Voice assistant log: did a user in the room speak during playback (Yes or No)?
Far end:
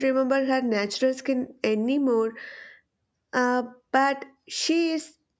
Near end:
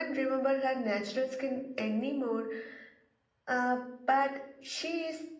No